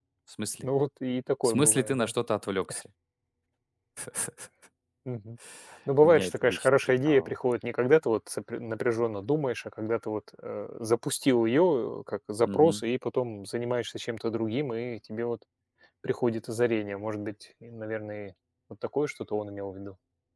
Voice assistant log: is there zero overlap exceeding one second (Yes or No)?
No